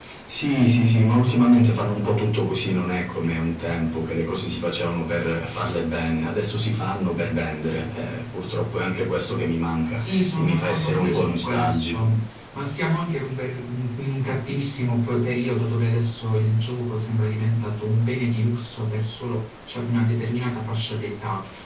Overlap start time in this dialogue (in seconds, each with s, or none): 9.9 s